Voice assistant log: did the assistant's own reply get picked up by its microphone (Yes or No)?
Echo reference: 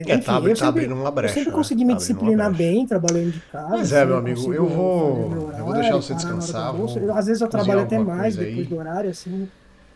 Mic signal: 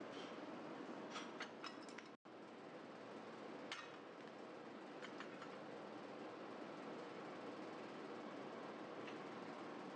No